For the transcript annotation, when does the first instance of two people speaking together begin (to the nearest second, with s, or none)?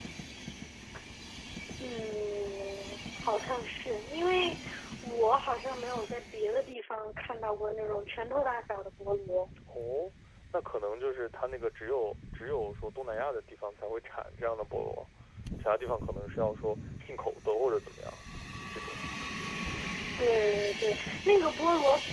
none